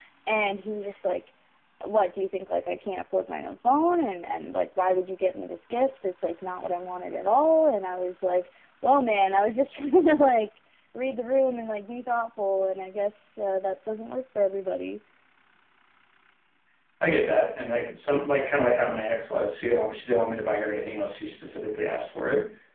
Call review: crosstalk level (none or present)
none